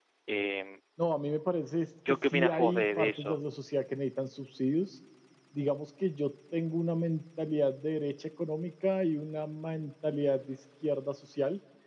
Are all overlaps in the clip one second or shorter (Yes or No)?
No